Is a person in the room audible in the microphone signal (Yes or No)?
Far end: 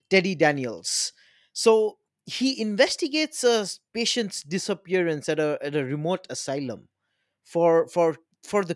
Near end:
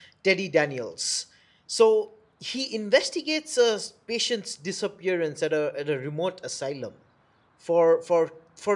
No